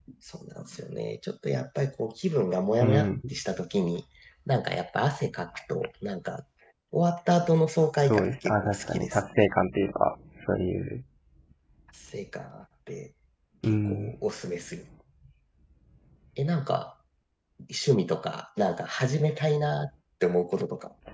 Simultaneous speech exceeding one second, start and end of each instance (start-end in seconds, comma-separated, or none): 8.0-9.2